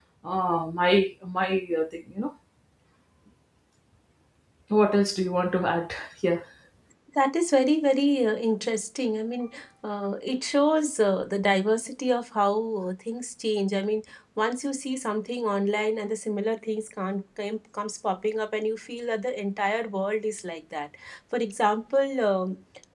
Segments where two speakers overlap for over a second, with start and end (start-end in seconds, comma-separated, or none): none